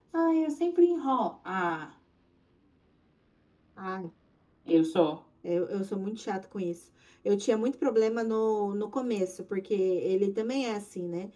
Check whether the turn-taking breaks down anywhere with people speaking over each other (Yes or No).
No